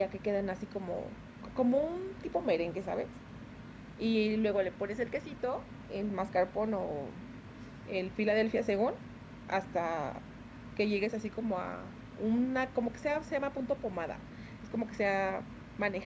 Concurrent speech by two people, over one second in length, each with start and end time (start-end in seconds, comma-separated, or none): none